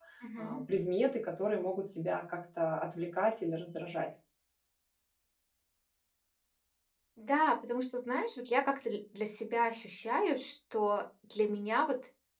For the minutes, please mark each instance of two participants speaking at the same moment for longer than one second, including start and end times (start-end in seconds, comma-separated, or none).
none